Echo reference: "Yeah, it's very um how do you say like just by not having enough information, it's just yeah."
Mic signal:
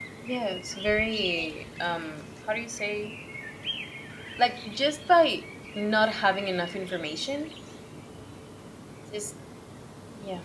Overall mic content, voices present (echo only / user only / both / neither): echo only